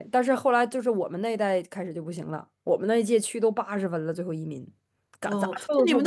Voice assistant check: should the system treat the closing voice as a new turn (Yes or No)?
Yes